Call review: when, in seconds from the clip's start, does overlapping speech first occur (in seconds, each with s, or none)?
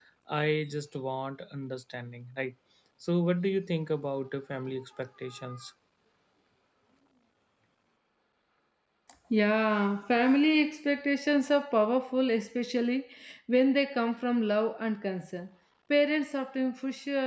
none